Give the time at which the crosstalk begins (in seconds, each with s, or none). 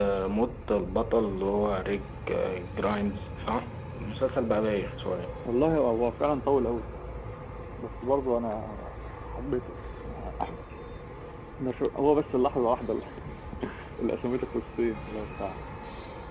none